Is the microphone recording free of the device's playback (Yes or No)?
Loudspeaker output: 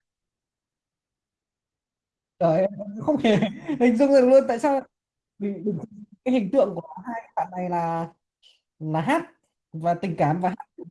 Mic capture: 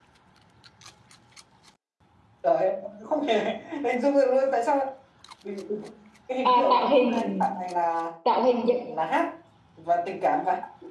No